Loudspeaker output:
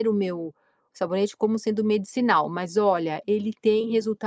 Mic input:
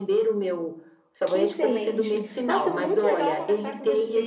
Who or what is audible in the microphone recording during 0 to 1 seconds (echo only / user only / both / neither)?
echo only